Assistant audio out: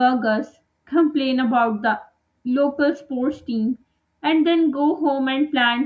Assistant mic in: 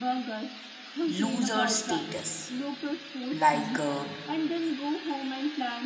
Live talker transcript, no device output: loser status. Like uh,

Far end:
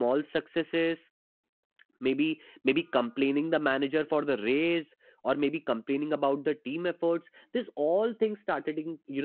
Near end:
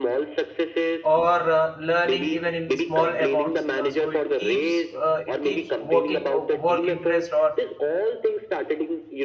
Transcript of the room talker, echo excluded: or uh, learning even in small amounts uh, so it keeps uh, it keeps working uh, work interest or

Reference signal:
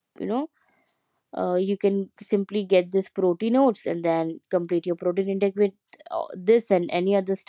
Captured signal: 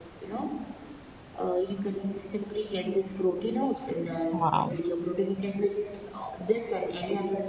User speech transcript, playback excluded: Wow.

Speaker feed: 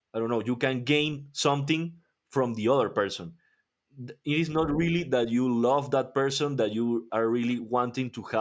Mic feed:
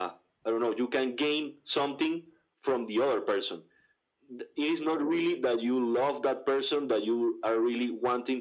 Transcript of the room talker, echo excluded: none

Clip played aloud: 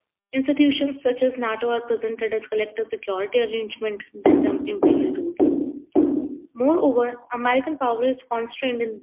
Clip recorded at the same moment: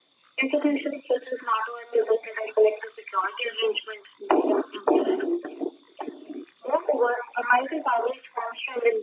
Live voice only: none

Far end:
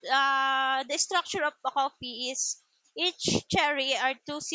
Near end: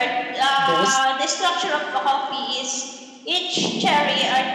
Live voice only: boost,

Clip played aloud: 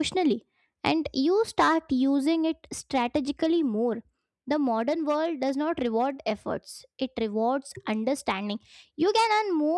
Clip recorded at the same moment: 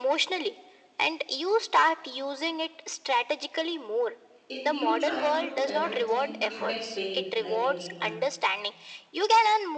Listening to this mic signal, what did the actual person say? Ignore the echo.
If you try to do everything, you get paid like everyone.

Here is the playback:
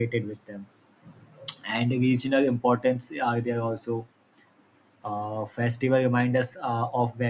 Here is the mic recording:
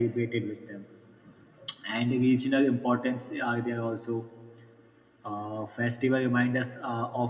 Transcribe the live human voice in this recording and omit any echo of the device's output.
none

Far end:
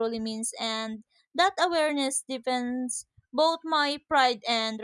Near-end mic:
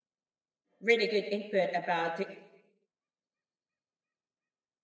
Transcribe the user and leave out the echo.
really good input about

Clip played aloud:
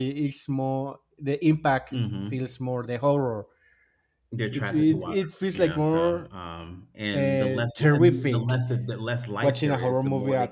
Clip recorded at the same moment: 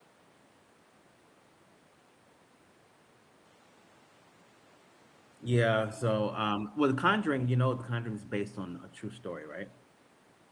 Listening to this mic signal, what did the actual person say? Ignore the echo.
Yeah. So, um, well, The Conjuring, you know, The Conjuring is based on a true story, right?

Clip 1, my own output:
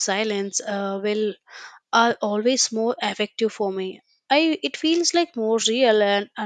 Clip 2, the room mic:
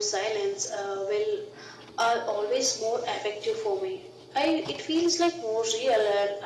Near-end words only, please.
none

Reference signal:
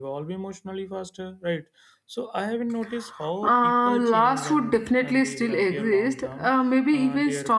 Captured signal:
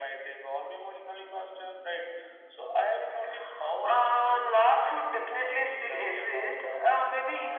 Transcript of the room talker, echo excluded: none

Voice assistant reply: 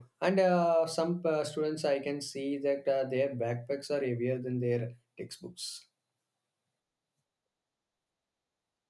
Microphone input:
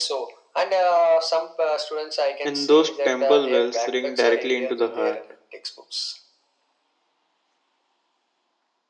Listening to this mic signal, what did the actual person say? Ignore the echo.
And those temple bells ring directly into the heart.

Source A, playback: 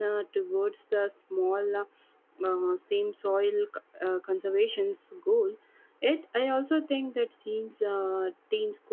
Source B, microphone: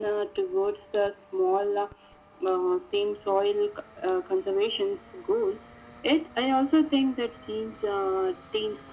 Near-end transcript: none

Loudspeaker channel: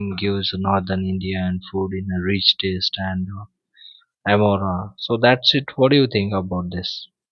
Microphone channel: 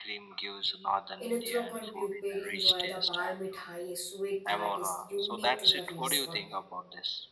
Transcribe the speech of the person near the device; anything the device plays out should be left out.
in uttarakhand people enjoy the bal mithai a sweet that is unique to the region

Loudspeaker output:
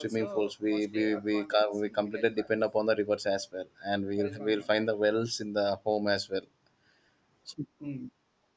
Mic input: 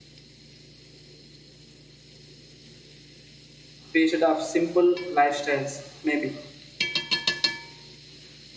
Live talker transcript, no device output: period of simple lifestyles, maybe

